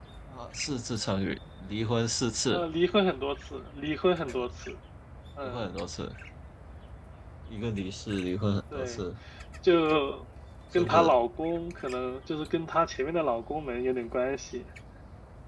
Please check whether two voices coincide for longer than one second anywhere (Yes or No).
No